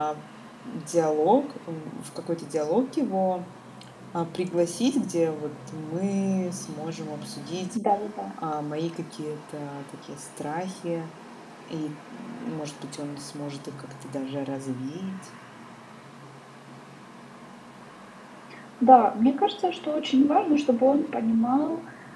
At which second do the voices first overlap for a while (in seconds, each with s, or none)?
none